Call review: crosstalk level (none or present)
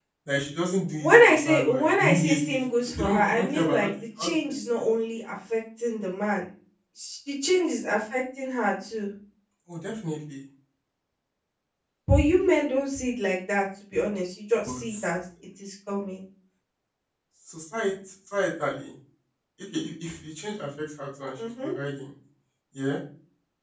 present